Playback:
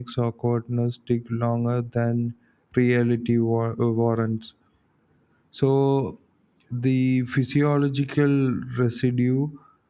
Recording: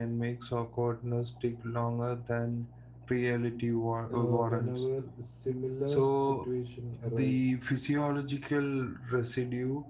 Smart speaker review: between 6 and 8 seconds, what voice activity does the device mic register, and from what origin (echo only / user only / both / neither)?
both